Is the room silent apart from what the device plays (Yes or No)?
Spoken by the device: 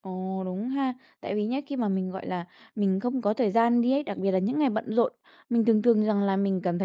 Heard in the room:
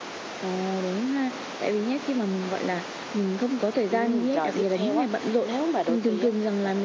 No